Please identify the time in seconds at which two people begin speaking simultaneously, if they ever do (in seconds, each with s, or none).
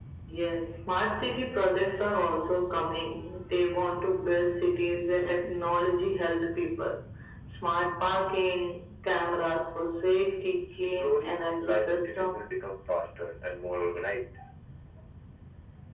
10.6 s